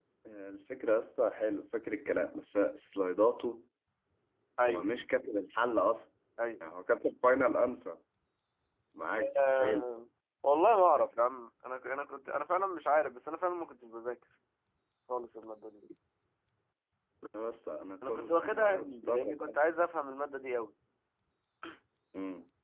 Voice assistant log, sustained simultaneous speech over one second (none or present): present